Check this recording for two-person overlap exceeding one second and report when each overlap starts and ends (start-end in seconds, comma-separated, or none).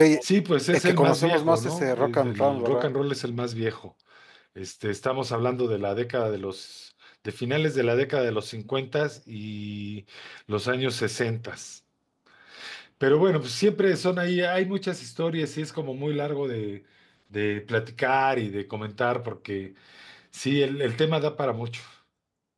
0.7-2.9